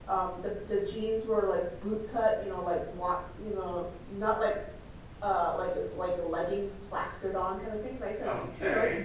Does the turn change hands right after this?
Yes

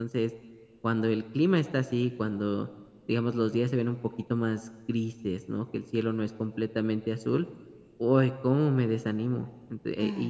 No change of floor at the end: Yes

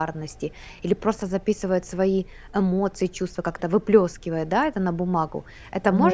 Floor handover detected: Yes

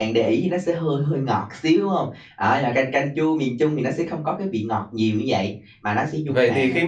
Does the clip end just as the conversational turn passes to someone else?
Yes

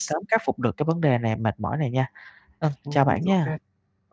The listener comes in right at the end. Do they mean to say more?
Yes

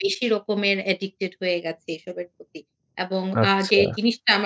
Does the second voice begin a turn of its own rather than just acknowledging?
No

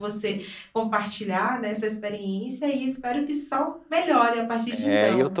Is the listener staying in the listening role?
No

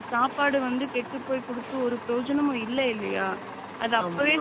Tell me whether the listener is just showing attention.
Yes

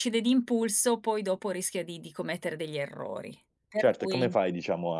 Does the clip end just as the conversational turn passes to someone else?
Yes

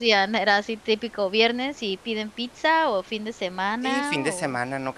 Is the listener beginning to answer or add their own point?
Yes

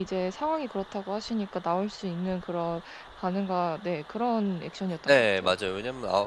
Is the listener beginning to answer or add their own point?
Yes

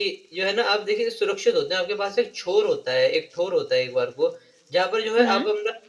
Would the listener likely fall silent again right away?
Yes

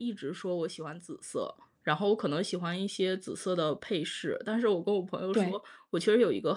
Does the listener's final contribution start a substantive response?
No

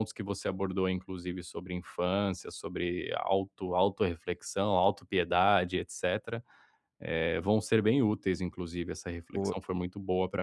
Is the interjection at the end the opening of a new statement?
No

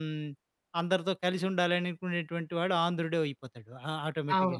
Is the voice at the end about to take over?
No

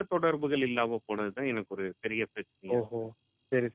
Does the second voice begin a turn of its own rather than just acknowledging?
Yes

